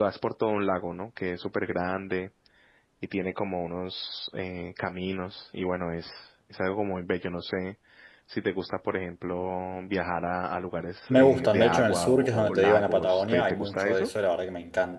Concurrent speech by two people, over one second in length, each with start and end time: 11.1-14.1

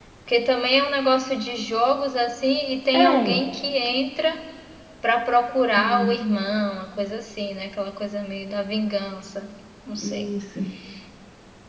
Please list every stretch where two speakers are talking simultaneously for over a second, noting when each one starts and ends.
none

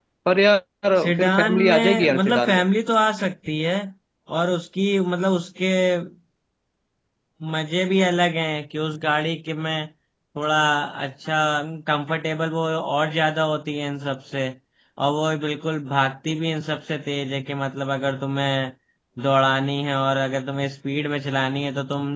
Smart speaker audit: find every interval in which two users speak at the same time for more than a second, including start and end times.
1.0-2.6

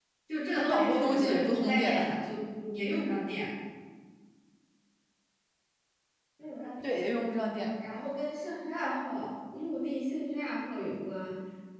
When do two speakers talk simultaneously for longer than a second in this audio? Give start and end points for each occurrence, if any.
0.6-1.9

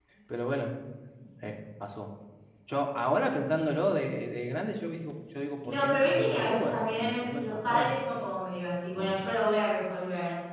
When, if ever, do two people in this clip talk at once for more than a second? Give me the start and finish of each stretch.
5.6-8.0

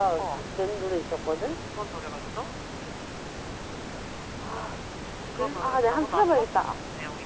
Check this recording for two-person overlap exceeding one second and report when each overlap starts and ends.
5.4-6.8

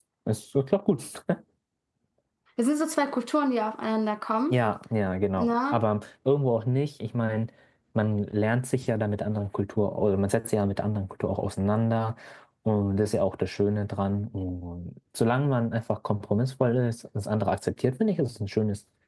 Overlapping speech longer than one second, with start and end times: none

